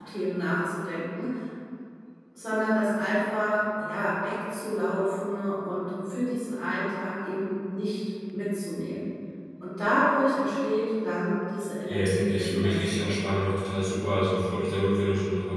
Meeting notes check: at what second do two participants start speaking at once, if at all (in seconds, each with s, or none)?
11.9 s